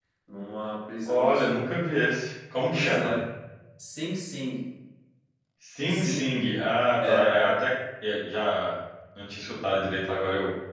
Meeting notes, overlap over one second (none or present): none